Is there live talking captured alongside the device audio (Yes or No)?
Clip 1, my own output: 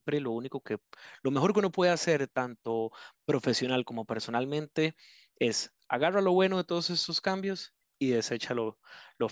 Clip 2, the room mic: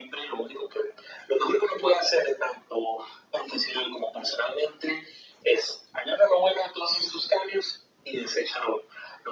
No